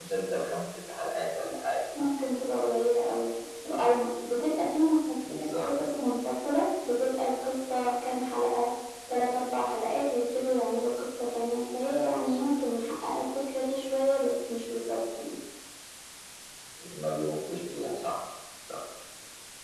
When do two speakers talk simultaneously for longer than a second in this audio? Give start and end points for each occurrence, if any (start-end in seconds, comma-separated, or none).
none